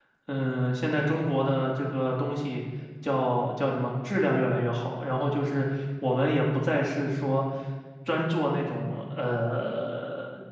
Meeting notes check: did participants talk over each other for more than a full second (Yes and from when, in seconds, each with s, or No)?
No